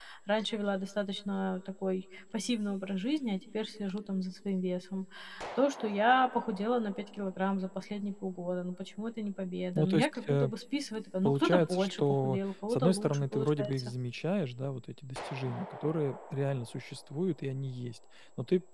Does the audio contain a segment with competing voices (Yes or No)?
Yes